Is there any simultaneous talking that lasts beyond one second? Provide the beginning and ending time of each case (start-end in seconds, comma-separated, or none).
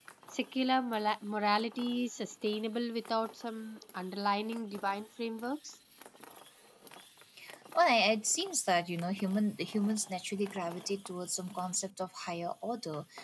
none